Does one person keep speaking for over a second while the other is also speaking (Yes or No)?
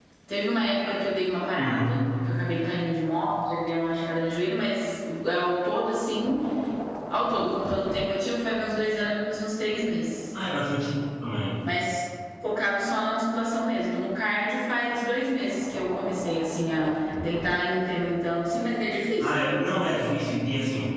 No